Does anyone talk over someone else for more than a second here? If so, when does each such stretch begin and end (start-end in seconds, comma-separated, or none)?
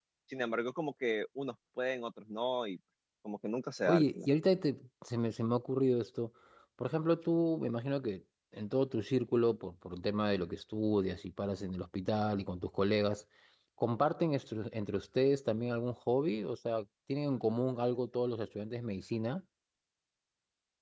none